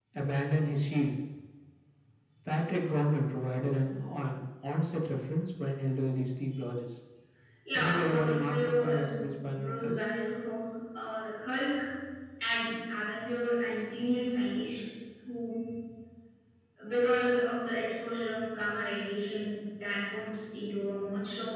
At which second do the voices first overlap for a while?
8 s

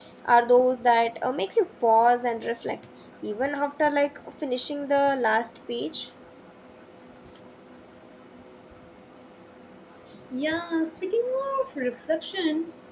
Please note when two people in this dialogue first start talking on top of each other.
none

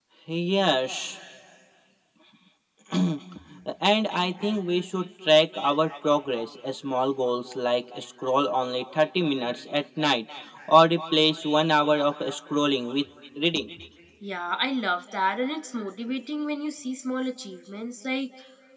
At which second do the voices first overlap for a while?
none

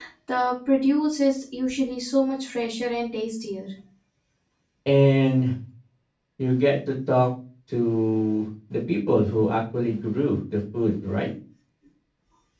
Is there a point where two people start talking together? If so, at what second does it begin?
none

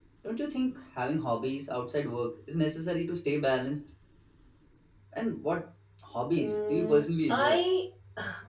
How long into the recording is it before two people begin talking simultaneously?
6 s

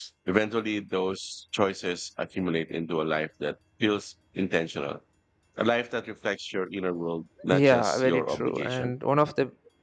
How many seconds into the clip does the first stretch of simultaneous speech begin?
8 s

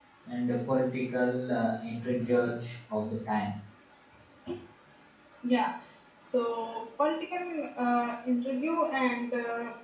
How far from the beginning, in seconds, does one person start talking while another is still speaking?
none

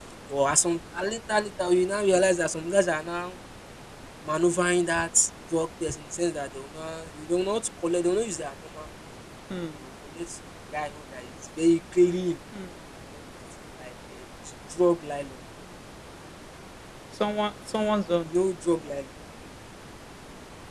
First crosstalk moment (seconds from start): none

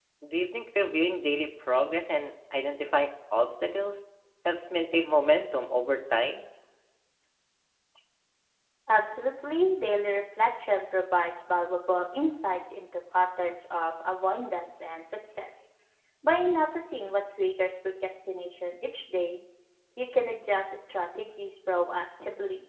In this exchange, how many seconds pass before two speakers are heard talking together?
none

